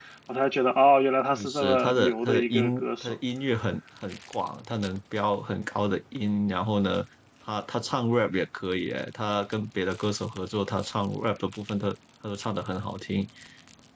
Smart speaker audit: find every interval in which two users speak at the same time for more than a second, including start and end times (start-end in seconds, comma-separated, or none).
1.3-3.2